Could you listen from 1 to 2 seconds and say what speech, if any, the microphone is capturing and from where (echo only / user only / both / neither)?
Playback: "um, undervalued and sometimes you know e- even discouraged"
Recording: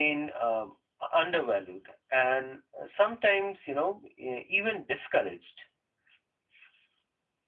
echo only